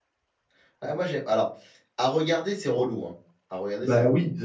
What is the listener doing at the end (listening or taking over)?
taking over